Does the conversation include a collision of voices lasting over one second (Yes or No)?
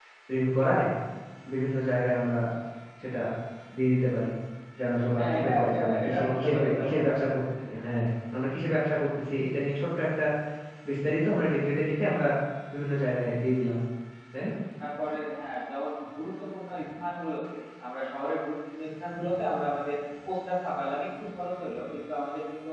Yes